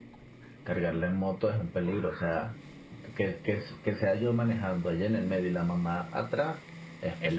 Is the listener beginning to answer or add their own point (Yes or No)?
Yes